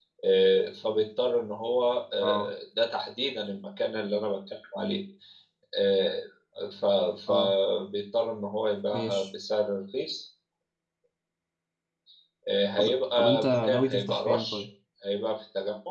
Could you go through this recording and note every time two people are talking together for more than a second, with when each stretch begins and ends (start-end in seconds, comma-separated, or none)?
12.8-14.6